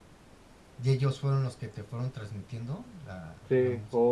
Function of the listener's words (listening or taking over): taking over